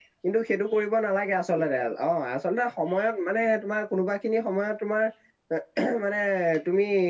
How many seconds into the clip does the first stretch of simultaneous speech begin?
none

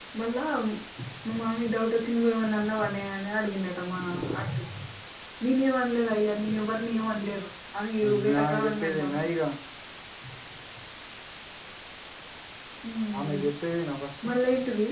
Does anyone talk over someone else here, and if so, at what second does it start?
8.0 s

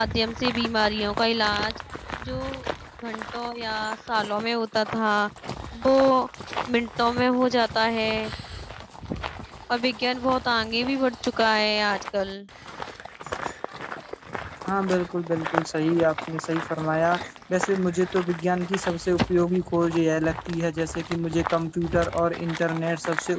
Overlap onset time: none

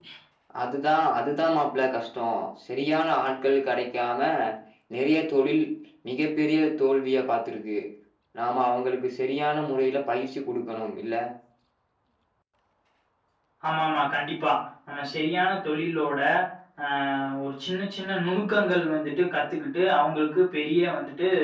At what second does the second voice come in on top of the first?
none

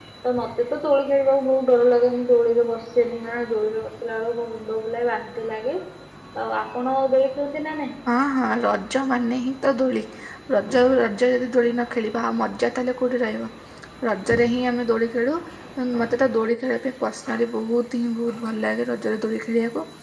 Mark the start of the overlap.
none

